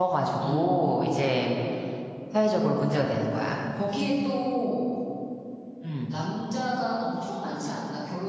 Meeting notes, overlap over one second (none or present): none